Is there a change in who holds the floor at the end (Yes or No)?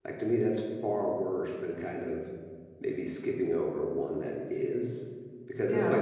No